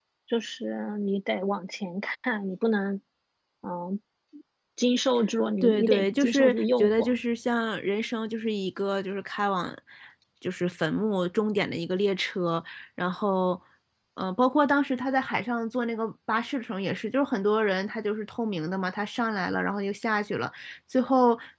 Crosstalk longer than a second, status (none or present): present